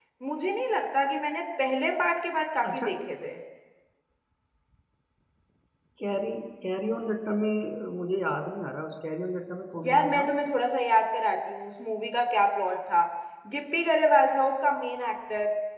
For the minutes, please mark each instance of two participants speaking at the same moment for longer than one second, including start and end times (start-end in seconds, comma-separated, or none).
none